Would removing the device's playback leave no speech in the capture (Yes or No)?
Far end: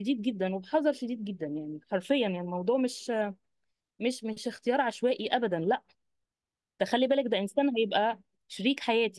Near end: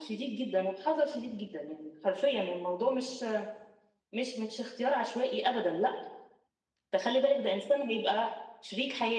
Yes